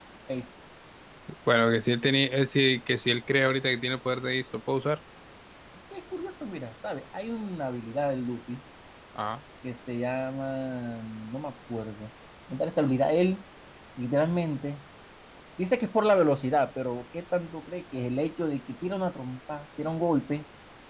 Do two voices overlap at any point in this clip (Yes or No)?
No